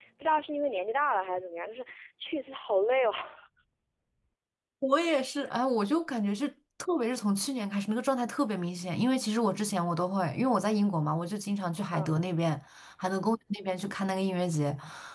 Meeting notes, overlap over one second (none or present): none